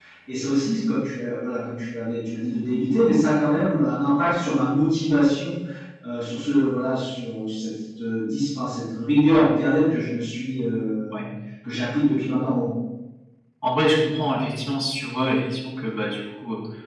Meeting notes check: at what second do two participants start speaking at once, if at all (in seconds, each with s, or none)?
none